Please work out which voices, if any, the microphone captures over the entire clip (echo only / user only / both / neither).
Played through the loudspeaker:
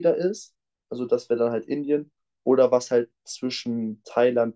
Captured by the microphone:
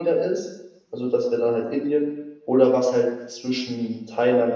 echo only